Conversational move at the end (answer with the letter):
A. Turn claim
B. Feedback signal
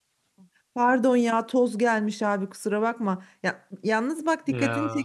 B